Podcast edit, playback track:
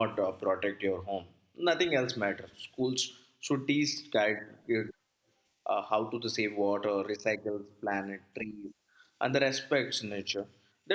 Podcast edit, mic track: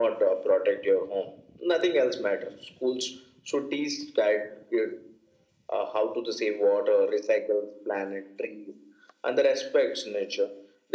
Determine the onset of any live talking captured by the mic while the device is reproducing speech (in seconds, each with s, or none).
none